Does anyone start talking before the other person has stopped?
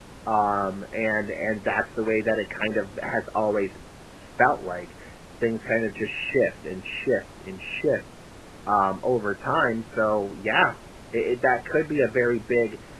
No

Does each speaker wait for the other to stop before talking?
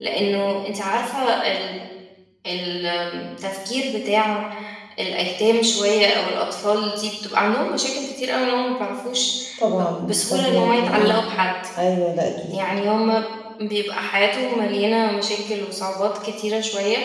No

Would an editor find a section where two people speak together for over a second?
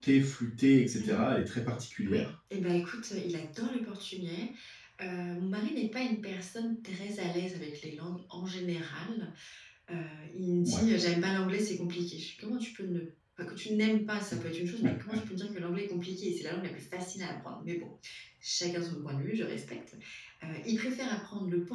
No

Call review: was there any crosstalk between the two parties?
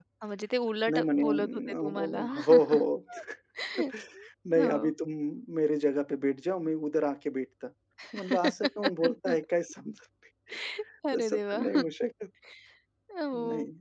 Yes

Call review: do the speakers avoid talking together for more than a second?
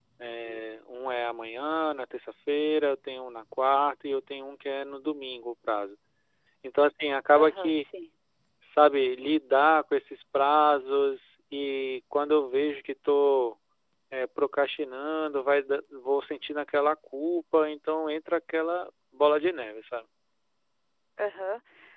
Yes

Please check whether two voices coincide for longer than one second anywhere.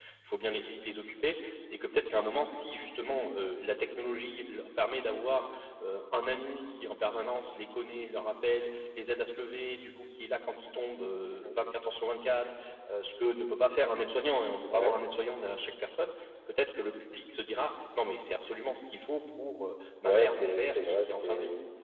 Yes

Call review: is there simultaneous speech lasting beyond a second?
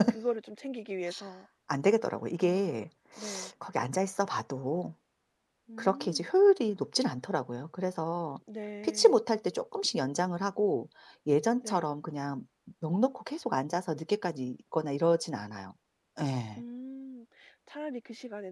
No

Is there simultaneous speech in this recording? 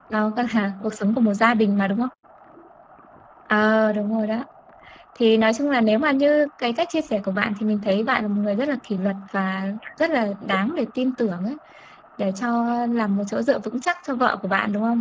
No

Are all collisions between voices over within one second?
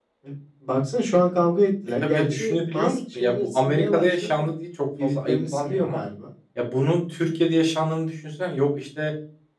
No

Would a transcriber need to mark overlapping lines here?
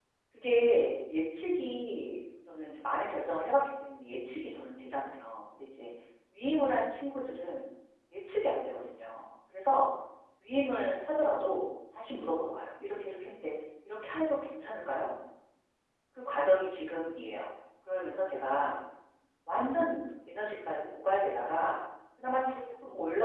No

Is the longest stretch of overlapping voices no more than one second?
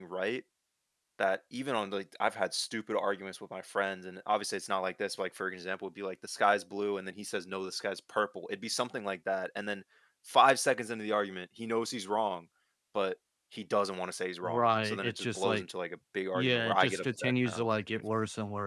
No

